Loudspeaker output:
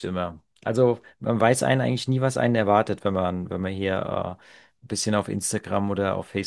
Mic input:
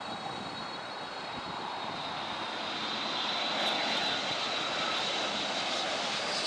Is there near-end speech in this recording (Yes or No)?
No